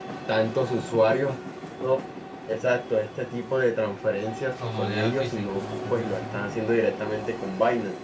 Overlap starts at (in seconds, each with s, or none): 4.6 s